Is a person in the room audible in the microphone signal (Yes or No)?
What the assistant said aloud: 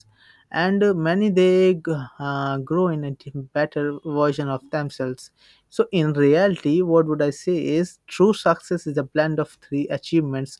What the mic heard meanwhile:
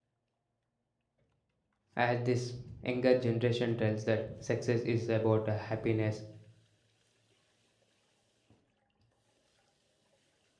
Yes